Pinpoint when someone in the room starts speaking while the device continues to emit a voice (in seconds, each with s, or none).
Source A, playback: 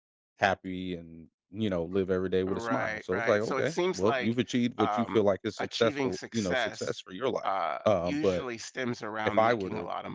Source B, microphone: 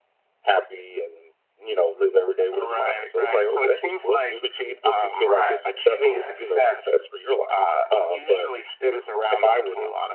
5.2 s